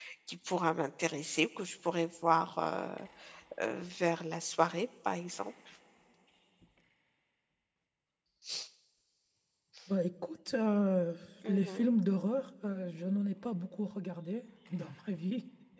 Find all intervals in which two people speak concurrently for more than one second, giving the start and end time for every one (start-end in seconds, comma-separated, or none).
none